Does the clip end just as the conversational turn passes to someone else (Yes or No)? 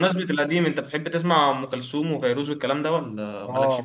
Yes